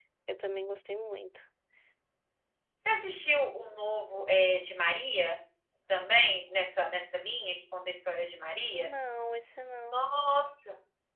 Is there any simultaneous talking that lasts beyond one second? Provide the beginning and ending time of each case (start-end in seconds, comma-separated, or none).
none